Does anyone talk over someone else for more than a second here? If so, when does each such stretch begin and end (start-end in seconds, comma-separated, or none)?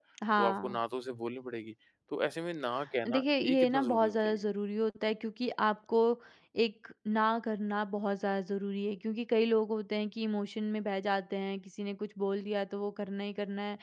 3.1-4.4